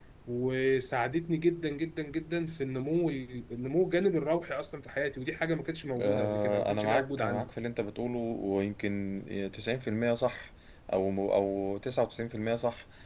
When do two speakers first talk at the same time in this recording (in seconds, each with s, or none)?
6.0 s